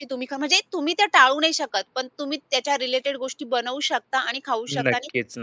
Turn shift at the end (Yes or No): No